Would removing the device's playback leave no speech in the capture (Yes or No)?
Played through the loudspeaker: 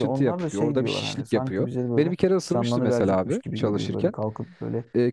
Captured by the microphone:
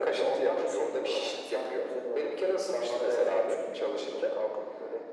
Yes